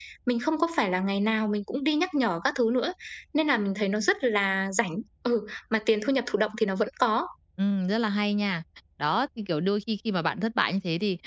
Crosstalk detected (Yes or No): No